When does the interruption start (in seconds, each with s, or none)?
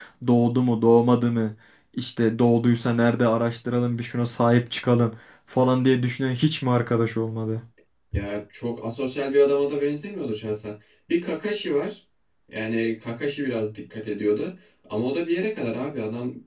none